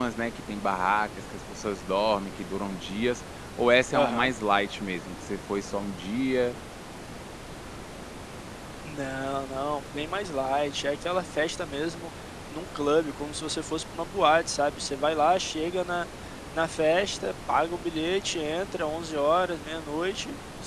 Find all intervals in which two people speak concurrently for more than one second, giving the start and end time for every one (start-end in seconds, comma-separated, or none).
none